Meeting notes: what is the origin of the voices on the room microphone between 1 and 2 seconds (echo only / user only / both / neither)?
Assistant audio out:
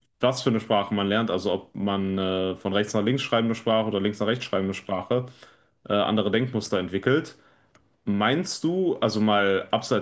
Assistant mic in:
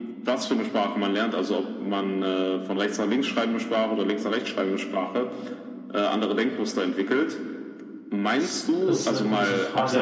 echo only